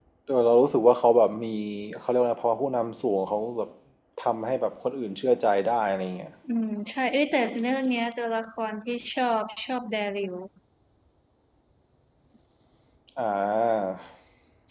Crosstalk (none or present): none